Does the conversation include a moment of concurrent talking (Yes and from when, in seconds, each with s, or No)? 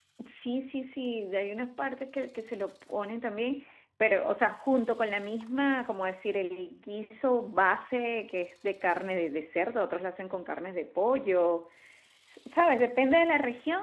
No